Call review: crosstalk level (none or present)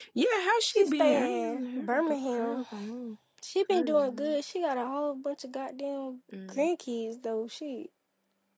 present